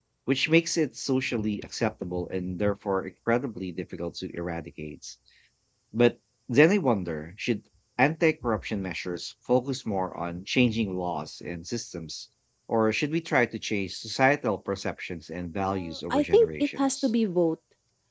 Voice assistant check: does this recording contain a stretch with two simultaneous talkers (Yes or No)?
Yes